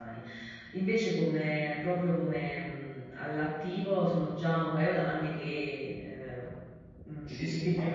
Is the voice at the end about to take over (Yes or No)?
Yes